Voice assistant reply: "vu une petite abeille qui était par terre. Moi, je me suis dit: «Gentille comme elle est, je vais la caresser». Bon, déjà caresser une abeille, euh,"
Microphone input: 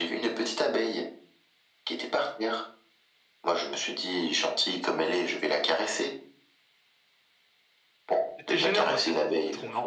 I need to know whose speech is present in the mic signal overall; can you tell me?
both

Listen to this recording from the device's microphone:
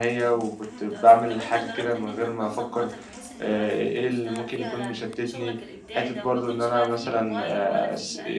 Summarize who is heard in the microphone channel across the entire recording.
both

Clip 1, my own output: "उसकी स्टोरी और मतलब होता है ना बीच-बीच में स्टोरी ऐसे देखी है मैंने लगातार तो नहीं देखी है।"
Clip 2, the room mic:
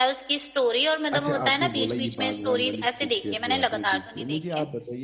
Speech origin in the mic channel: both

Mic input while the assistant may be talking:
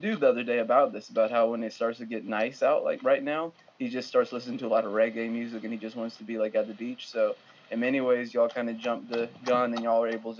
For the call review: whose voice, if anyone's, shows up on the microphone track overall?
echo only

